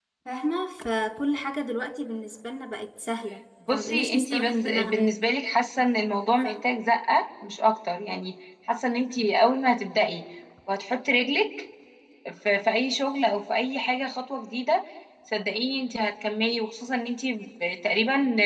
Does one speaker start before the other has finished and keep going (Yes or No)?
Yes